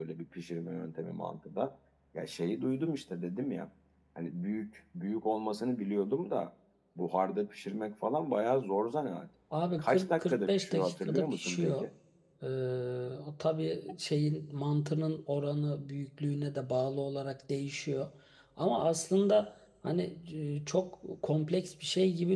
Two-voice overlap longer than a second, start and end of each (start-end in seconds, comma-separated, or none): 9.8-11.8